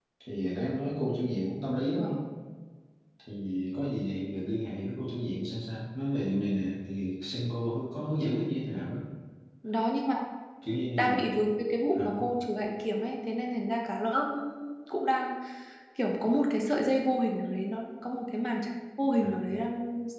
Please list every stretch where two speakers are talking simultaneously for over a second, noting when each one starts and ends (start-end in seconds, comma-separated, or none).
none